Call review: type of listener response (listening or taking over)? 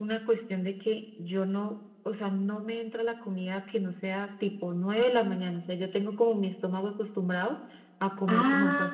taking over